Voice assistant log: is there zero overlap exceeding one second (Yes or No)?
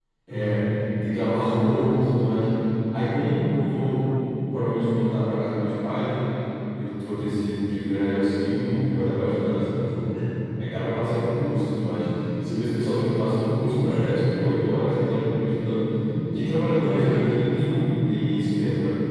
No